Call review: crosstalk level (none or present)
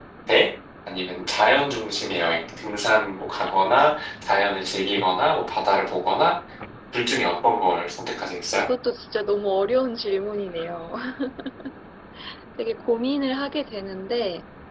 none